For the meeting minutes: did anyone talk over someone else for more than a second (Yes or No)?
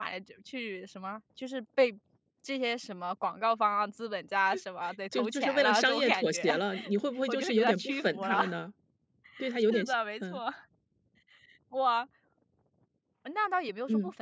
Yes